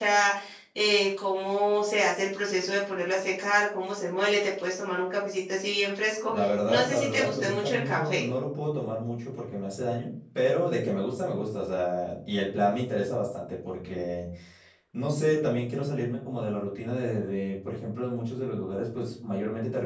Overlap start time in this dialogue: 6.3 s

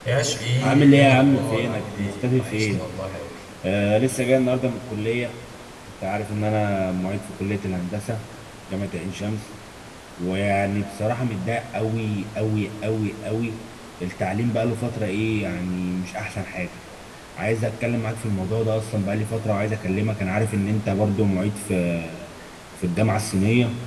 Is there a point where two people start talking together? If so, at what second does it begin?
0.6 s

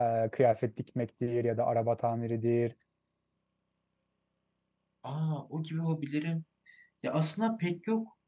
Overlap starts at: none

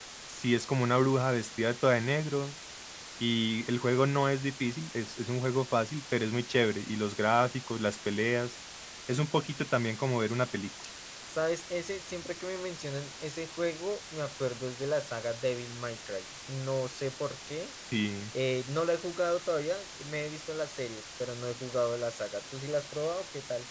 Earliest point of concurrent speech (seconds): none

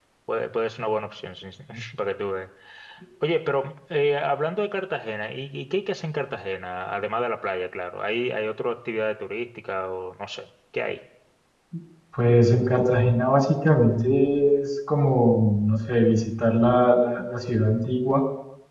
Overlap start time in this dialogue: none

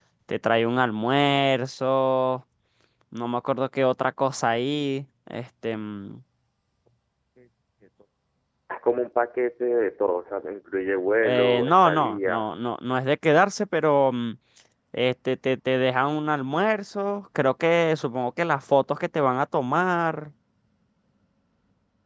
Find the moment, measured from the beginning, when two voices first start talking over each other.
11.2 s

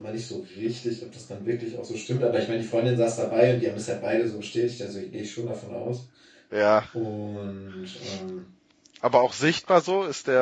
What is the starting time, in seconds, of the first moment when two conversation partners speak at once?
none

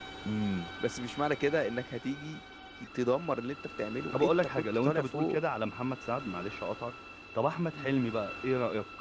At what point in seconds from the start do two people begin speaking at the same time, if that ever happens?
4.1 s

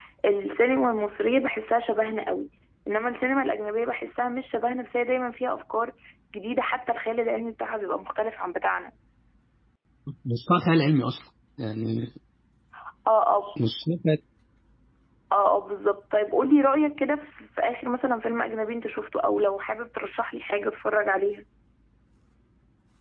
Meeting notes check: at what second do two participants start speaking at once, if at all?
none

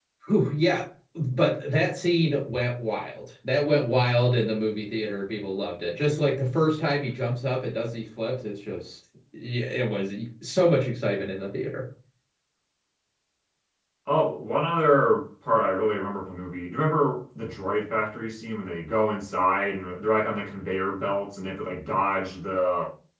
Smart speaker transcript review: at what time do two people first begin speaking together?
none

